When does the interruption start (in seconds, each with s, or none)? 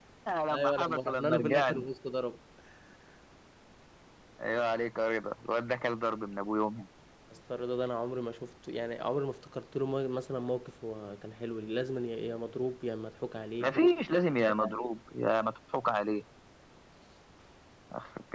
0.5 s